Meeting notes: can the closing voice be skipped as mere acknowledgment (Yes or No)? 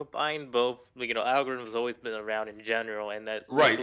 No